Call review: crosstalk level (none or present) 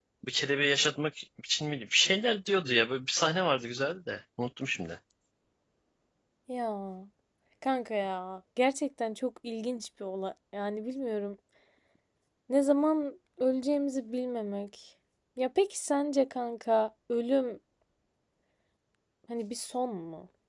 none